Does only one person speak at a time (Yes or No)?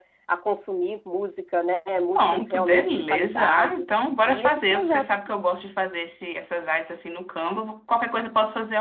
No